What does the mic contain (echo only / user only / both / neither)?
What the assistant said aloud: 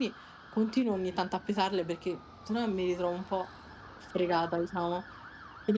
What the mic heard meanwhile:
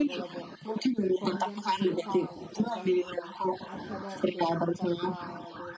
both